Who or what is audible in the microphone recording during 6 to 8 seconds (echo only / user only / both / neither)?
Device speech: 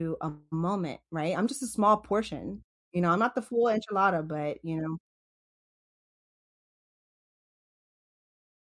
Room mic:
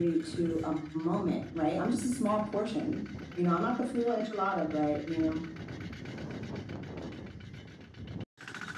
neither